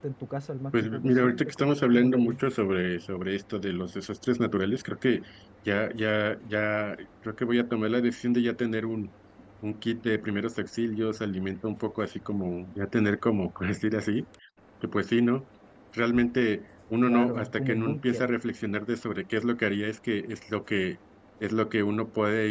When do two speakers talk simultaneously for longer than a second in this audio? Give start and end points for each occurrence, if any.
0.7-2.4, 17.1-18.3

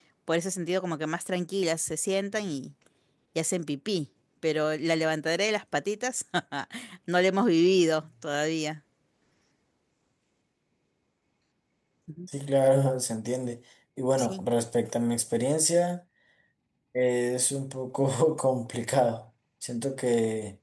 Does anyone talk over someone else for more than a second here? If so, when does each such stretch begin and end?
none

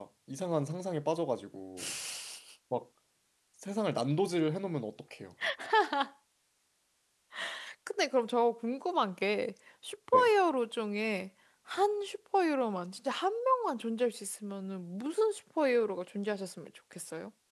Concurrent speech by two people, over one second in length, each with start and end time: none

